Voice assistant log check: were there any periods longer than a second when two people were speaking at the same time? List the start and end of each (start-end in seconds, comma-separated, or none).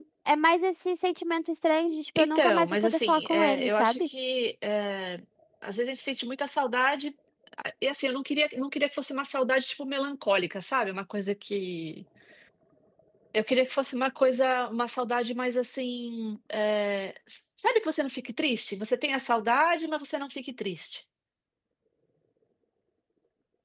2.2-4.1